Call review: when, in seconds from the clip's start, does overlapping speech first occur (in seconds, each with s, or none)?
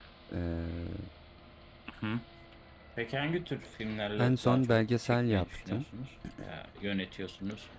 4.2 s